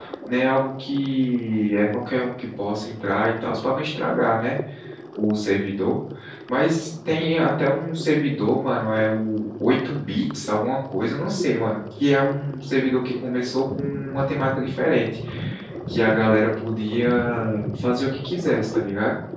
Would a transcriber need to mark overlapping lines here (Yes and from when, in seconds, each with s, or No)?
No